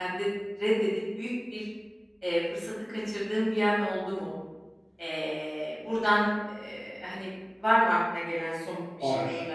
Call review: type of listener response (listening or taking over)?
taking over